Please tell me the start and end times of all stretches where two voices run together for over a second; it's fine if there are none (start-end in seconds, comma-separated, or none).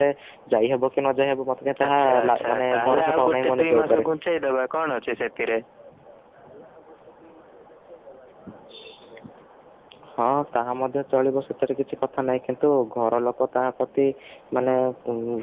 1.9-4.1